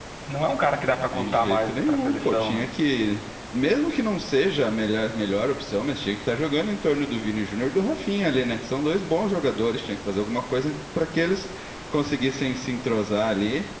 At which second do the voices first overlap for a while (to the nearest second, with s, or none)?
1 s